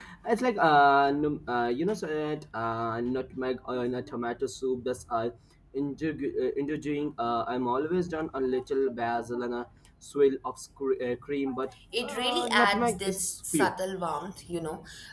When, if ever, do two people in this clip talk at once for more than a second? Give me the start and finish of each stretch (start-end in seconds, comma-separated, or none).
12.0-13.7